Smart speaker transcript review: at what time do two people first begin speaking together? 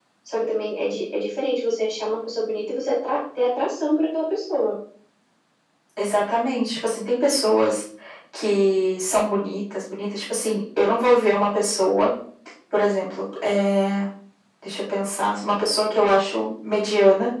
none

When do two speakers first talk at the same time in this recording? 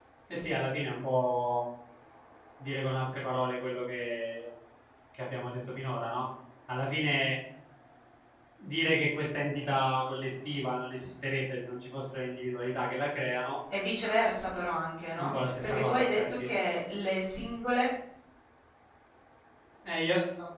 15.2 s

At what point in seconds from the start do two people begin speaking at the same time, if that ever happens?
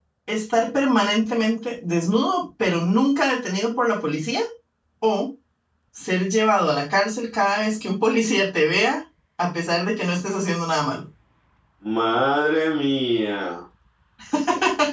none

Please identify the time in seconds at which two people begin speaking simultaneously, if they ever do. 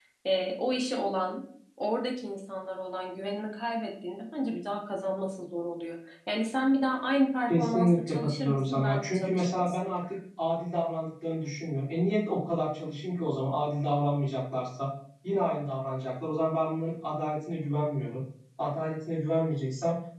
7.5 s

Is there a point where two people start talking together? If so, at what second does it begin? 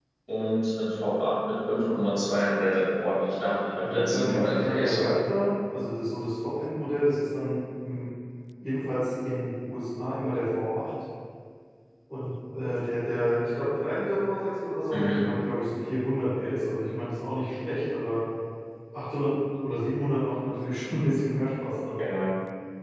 3.9 s

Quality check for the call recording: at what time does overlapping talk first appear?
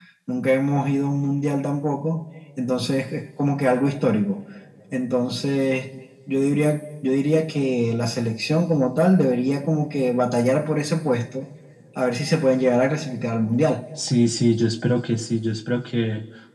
none

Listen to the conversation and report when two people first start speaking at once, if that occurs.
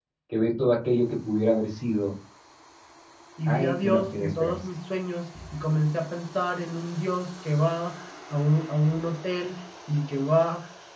3.4 s

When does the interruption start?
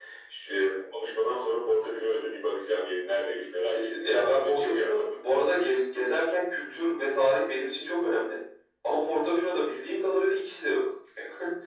3.7 s

